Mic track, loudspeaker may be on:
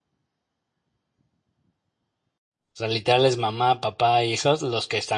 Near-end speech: present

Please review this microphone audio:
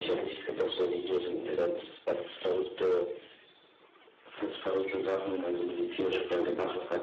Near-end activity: present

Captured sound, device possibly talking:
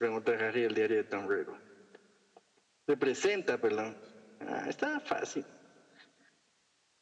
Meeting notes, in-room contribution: none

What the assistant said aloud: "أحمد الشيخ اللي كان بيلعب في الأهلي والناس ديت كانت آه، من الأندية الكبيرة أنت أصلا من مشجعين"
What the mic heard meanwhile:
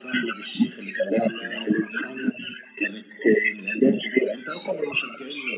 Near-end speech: present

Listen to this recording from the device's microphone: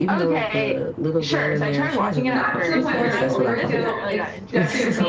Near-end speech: present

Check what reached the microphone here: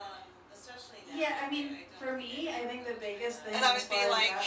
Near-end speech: present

